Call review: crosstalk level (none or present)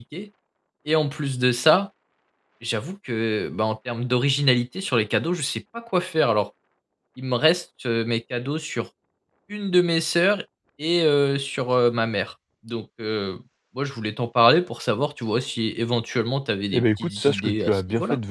present